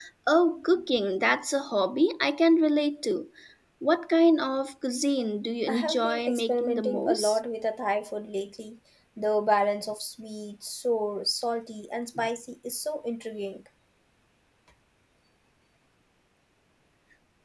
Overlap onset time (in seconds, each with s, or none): 5.7 s